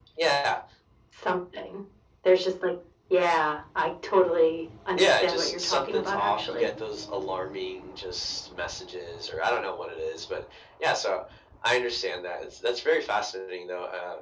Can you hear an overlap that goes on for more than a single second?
Yes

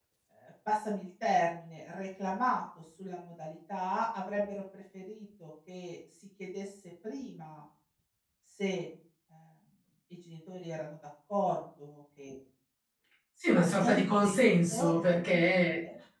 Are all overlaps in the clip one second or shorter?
No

